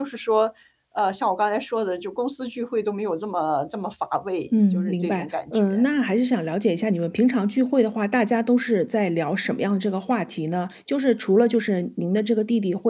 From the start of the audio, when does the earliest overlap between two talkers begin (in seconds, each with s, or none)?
4.5 s